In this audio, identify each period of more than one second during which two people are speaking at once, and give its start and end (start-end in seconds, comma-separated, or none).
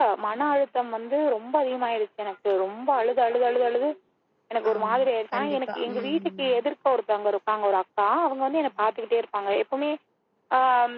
4.8-6.6